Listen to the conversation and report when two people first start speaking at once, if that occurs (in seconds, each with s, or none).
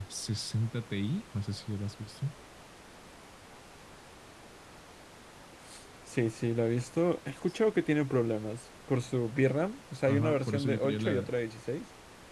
10.1 s